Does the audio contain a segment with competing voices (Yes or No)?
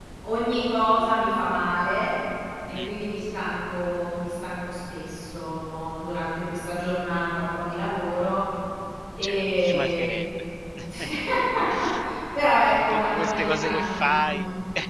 Yes